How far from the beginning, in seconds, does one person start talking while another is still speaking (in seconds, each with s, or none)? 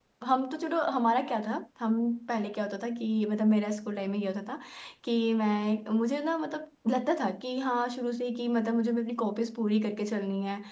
none